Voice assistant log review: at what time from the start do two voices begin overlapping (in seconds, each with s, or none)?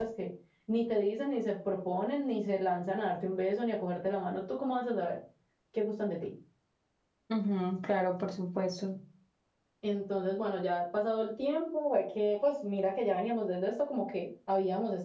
none